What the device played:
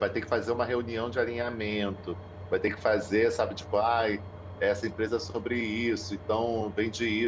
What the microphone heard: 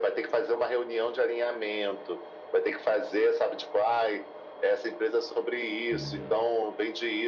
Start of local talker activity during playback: 6 s

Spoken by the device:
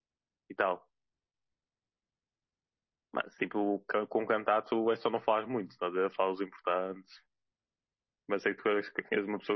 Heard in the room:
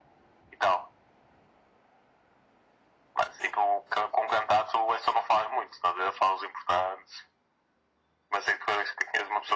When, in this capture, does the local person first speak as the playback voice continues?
none

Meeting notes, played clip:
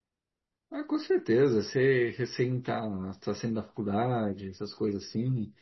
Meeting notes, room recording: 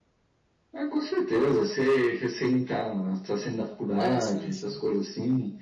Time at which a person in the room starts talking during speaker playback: 4 s

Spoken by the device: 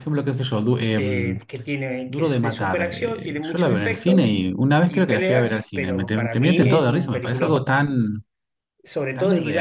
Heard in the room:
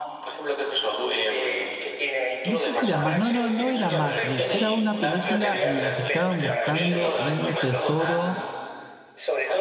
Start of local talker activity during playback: 2 s

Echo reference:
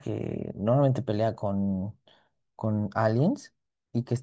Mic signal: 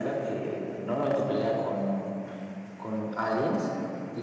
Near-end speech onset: none

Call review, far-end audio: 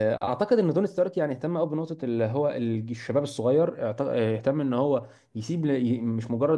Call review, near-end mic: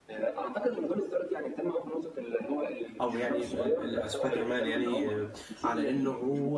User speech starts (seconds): 3 s

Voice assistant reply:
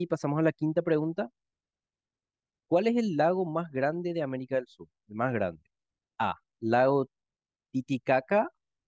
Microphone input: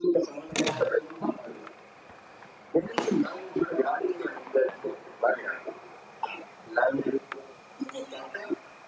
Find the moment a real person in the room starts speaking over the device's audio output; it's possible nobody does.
none

